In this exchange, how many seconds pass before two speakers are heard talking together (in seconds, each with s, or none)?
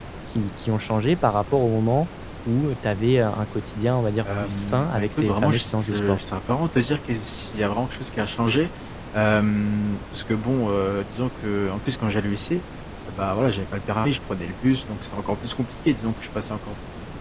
4.2 s